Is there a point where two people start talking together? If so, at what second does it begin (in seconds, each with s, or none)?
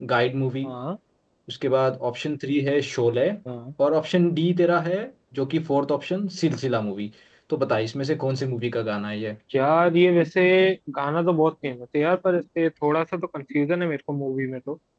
none